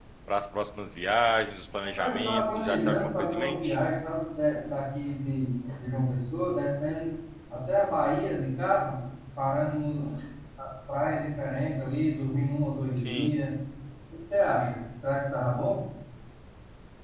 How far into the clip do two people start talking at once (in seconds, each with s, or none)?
2.0 s